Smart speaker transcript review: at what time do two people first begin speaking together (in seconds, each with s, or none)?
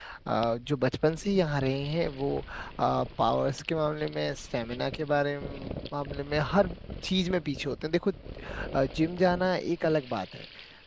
none